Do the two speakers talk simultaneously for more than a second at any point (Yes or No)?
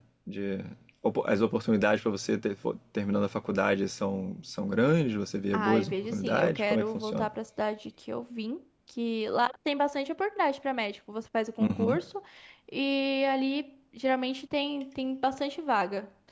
Yes